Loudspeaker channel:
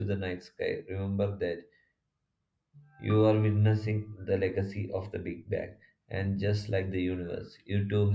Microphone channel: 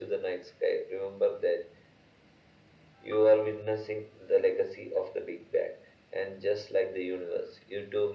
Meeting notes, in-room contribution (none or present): none